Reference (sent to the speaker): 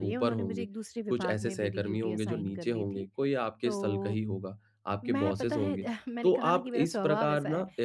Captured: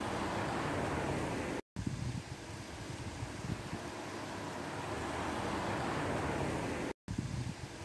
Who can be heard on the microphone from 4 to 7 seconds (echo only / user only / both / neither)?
neither